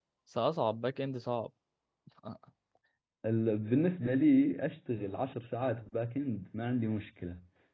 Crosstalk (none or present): none